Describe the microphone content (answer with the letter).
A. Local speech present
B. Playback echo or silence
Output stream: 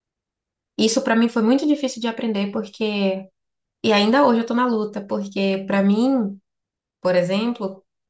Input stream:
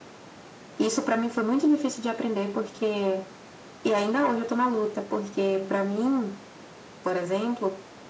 B